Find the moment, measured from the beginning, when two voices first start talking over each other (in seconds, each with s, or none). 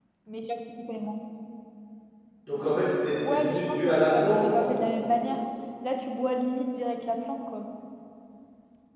3.2 s